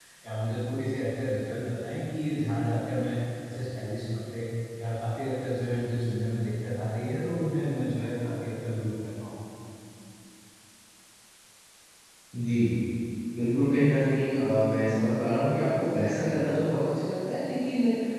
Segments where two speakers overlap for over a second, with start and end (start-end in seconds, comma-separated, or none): none